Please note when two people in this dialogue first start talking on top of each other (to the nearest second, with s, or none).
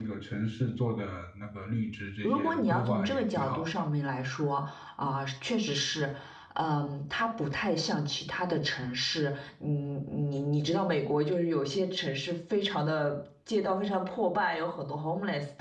2 s